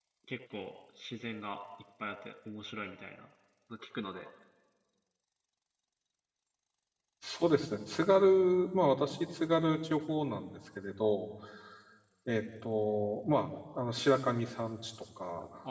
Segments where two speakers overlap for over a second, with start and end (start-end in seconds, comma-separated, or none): none